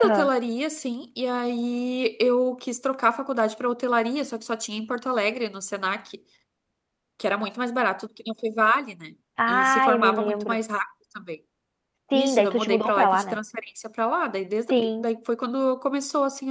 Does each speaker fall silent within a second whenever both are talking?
No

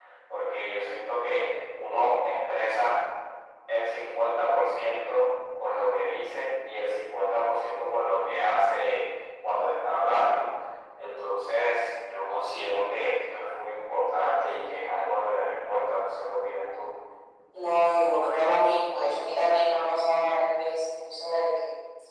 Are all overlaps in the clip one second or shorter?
Yes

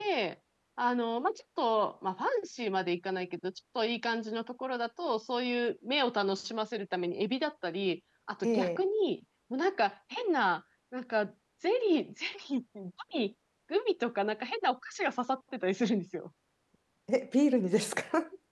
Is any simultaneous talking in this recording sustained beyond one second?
No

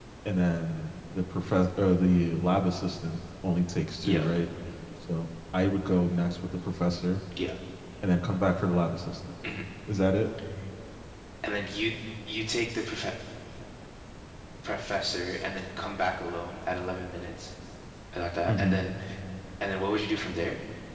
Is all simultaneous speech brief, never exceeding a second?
Yes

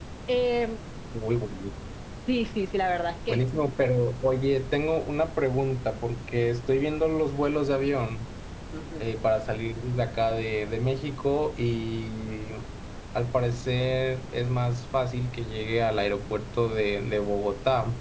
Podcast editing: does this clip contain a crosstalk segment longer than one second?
No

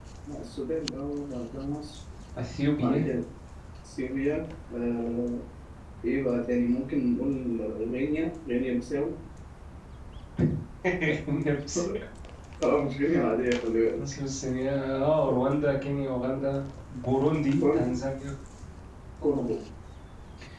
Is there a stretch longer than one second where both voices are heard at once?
No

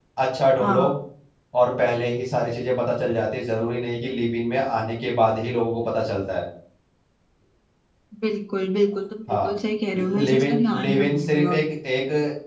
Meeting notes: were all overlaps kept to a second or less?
No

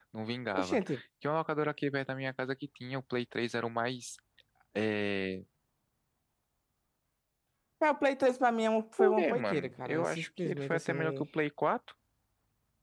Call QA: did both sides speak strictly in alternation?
No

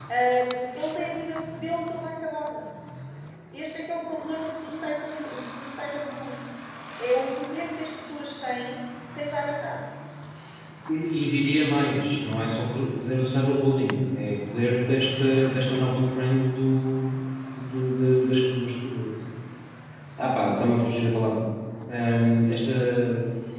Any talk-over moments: No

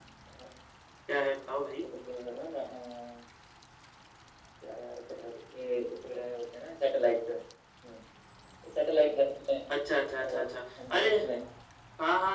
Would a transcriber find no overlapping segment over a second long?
Yes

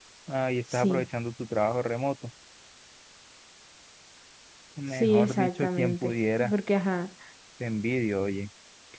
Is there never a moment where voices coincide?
No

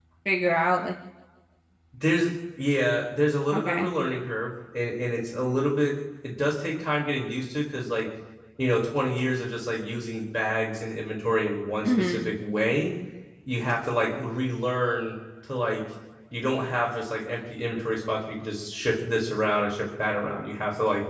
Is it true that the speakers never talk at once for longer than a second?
Yes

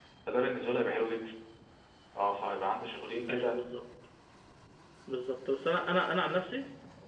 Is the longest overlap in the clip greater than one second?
No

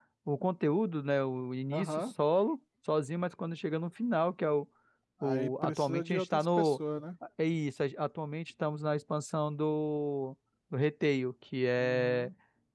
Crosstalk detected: Yes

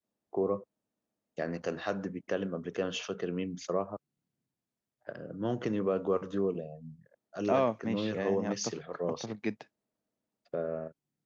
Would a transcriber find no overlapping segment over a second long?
No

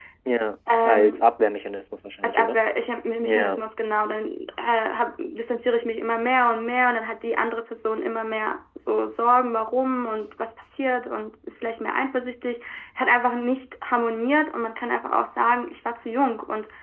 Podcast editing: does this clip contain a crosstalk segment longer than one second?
No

